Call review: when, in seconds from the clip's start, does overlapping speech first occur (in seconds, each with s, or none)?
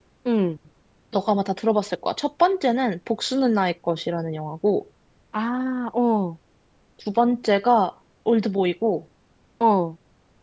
none